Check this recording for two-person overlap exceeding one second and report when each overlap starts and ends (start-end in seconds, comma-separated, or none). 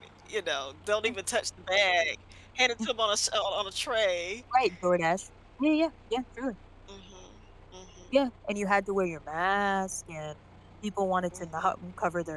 none